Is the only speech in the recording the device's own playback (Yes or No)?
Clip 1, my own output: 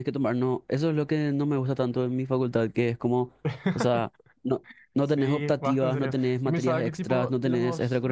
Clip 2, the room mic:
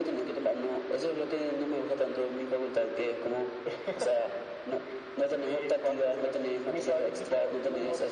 Yes